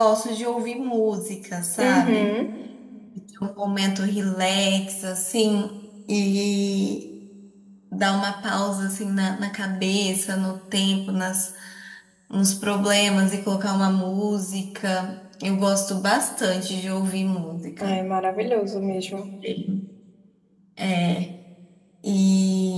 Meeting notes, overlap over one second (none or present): none